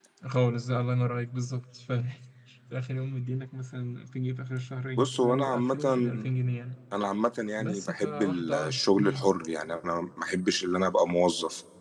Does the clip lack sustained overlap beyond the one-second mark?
No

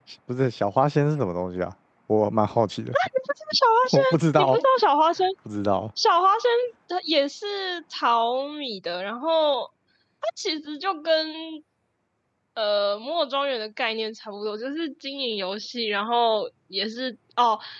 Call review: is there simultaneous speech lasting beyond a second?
No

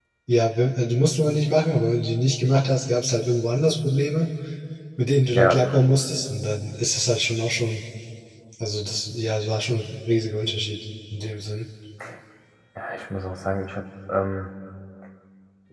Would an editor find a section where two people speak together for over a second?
No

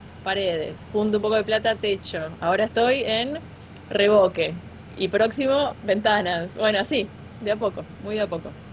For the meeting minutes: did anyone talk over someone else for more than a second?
No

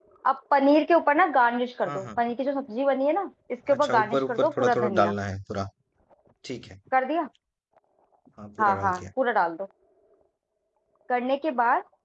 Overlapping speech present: Yes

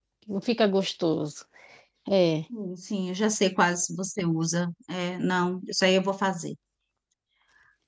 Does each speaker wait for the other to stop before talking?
Yes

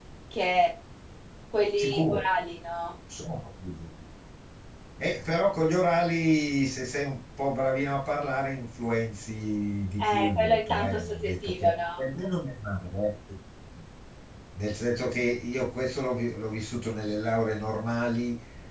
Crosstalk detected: Yes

